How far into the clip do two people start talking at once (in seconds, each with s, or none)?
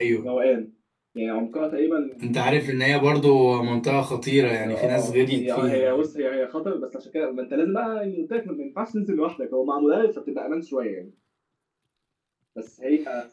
4.4 s